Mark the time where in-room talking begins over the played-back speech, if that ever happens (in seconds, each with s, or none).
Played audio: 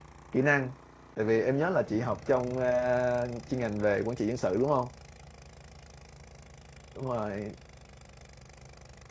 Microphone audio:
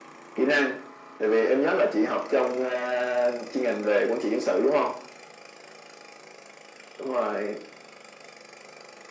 none